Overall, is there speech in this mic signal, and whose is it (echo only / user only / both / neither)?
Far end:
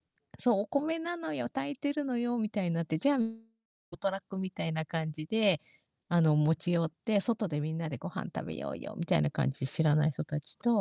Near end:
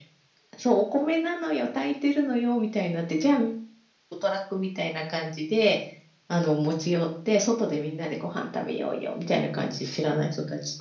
echo only